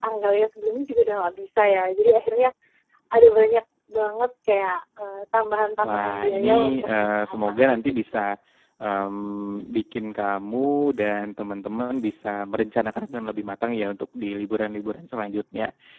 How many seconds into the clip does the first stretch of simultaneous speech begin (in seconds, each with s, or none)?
5.8 s